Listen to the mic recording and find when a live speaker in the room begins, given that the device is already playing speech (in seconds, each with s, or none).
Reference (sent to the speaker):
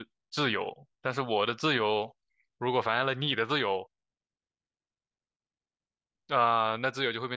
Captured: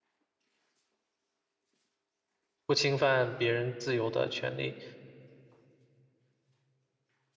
2.7 s